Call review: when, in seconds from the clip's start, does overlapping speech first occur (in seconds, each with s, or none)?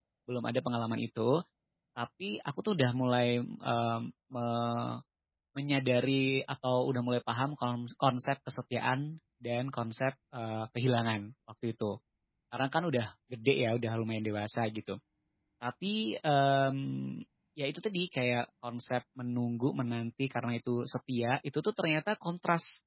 none